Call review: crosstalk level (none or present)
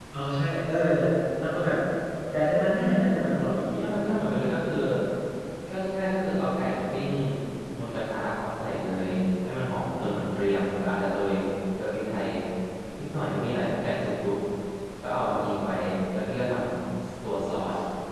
none